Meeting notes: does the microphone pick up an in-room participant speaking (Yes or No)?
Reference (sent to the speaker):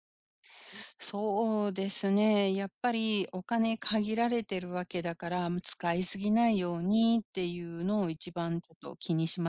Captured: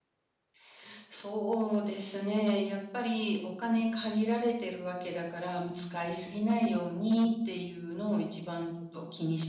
No